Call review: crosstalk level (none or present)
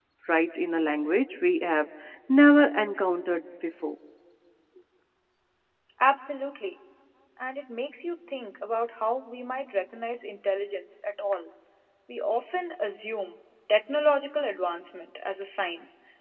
none